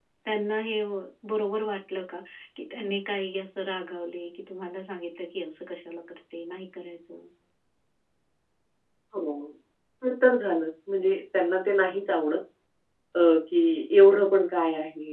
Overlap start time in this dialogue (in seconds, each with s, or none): none